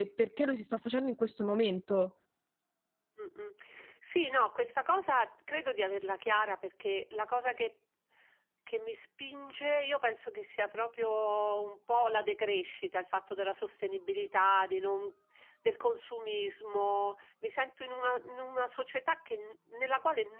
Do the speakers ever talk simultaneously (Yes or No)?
No